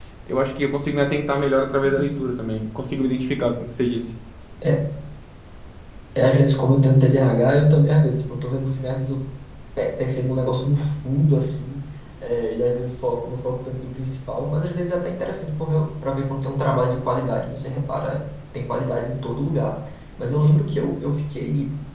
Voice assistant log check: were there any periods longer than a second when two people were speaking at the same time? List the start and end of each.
none

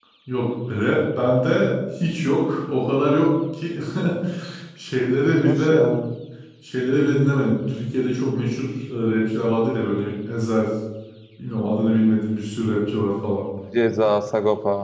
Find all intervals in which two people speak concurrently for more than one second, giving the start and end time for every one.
none

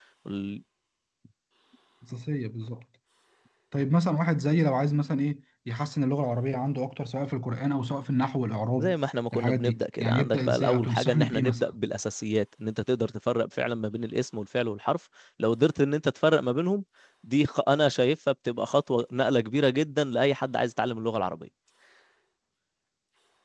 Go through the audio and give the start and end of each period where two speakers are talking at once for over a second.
9.3-11.6

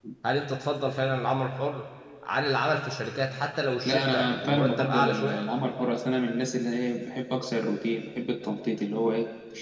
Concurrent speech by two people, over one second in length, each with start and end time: 3.9-5.4

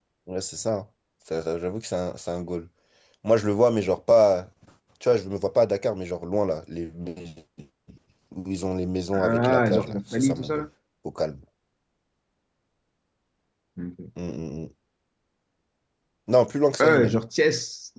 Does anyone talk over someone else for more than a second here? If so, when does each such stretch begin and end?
9.1-10.7

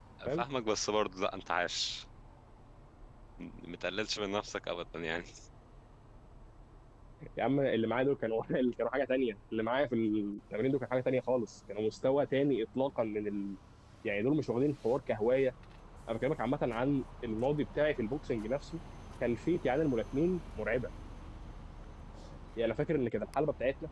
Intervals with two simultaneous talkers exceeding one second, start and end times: none

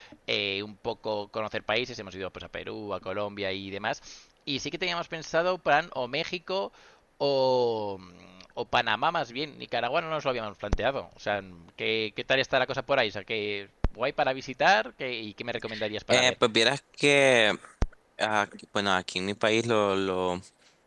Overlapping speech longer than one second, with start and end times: none

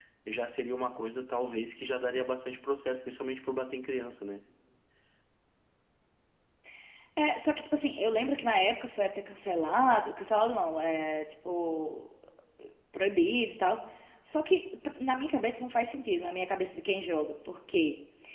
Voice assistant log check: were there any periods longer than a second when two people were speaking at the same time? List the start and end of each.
none

